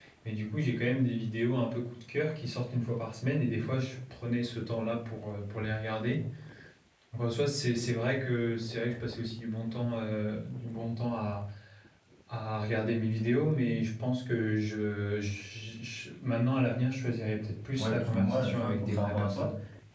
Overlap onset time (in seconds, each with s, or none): 17.8 s